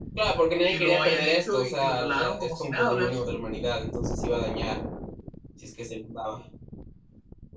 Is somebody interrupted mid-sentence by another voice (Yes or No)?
Yes